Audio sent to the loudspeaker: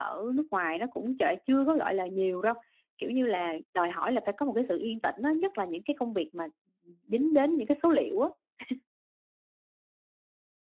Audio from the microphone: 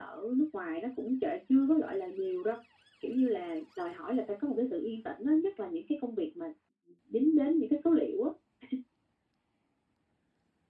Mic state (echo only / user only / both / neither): echo only